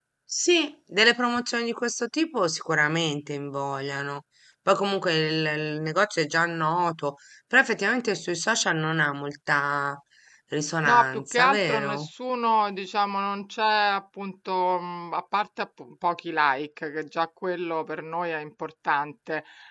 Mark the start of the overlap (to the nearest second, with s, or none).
11 s